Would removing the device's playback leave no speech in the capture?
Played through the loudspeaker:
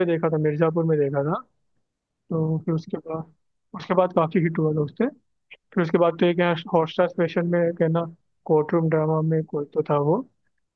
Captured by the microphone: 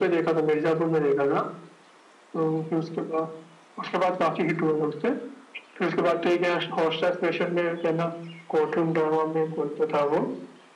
Yes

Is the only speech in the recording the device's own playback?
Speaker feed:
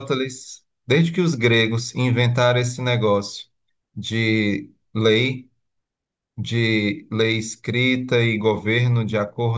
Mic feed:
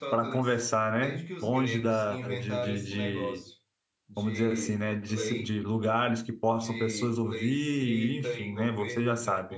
No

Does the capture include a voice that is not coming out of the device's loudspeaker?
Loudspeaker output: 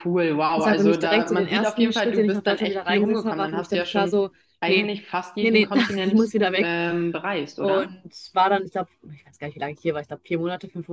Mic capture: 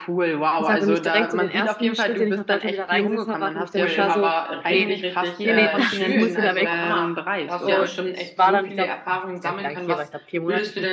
Yes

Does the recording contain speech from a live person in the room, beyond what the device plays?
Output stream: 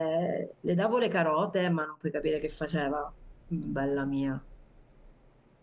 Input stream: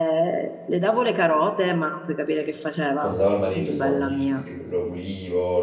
Yes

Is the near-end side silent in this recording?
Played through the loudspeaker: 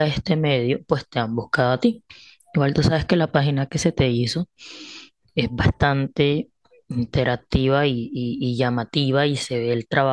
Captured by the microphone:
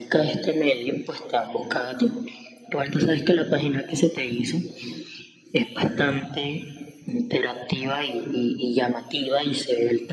Yes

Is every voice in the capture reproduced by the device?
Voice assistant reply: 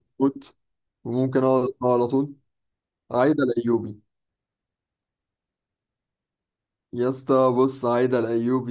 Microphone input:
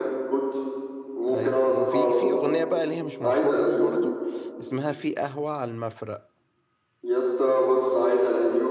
No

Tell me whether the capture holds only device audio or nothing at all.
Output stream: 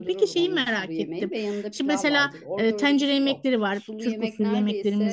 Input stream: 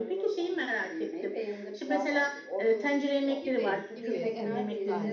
No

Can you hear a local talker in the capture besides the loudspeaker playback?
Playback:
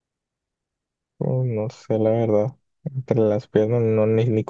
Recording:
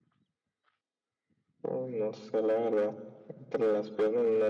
No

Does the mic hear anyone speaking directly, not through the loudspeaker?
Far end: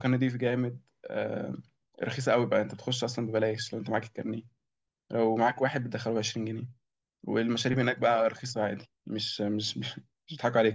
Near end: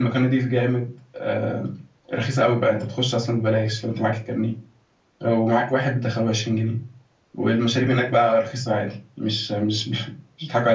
No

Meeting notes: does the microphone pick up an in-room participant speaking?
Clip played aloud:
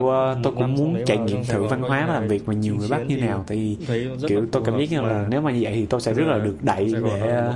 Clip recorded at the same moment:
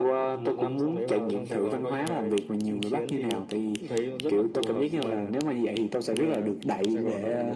No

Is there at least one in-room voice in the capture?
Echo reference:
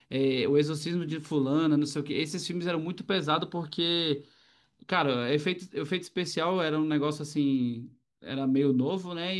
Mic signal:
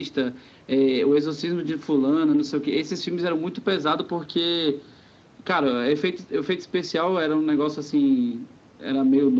No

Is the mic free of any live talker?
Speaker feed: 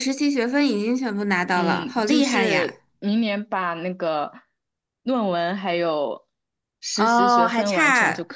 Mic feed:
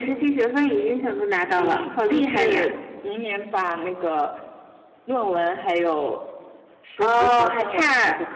Yes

